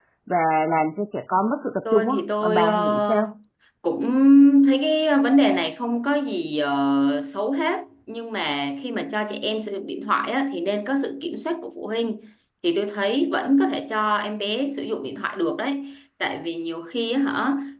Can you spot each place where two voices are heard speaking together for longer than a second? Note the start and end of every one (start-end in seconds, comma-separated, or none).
1.9-3.3